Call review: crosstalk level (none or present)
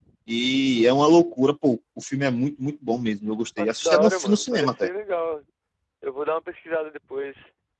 present